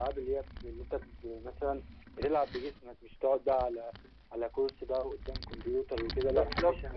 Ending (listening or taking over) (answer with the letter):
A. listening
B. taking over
B